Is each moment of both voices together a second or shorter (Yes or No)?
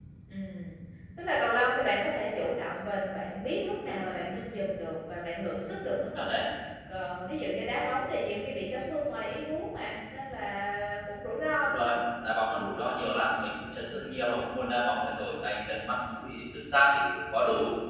Yes